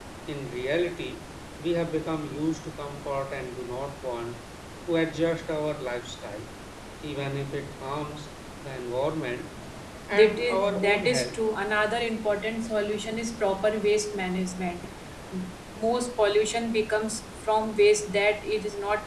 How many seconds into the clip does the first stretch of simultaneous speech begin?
10.1 s

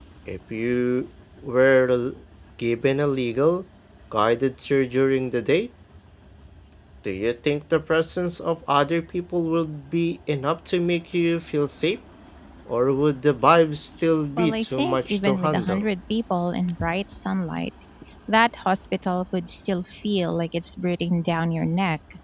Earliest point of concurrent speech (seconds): 14.4 s

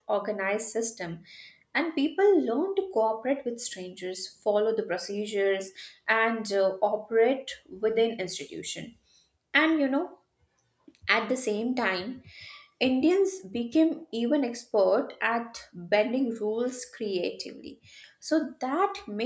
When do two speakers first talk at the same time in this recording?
none

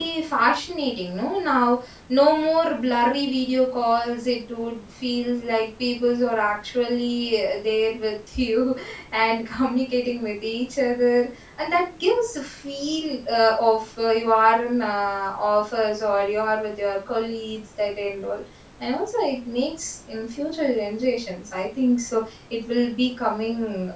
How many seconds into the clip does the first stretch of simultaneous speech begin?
none

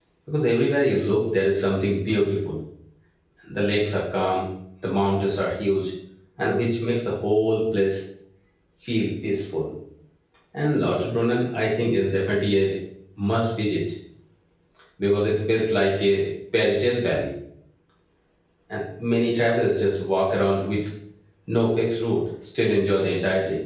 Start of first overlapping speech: none

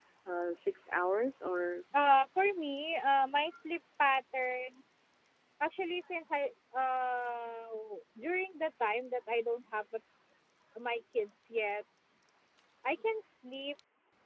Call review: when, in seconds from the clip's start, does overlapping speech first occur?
none

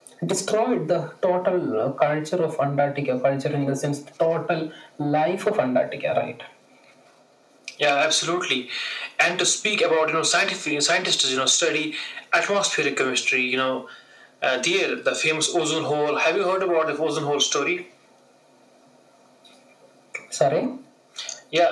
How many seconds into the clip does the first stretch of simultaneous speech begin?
none

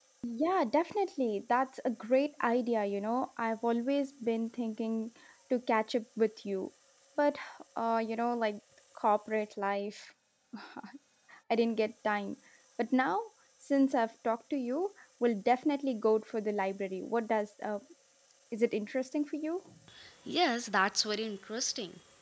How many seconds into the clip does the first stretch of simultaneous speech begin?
none

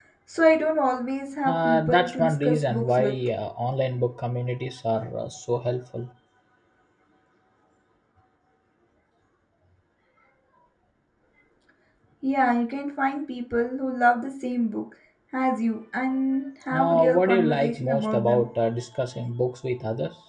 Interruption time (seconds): 1.5 s

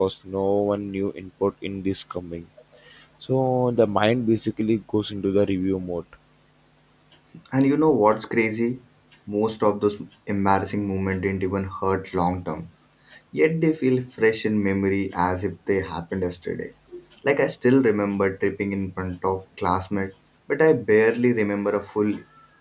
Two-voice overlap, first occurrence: none

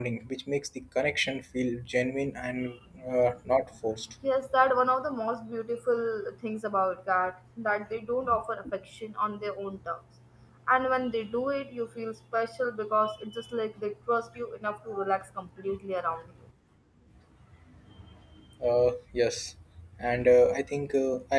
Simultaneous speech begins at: none

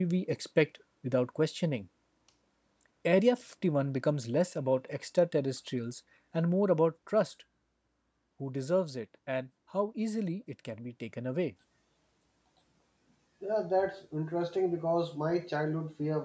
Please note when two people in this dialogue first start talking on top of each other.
none

